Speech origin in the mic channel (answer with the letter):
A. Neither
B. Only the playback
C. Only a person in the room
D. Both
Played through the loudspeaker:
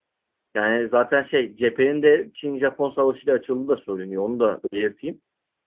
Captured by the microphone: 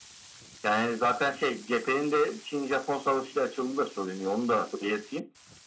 B